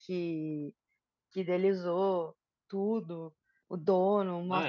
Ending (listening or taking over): listening